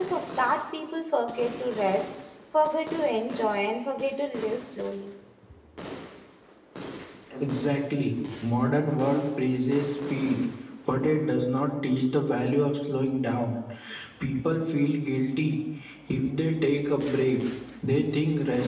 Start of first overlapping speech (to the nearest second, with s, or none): none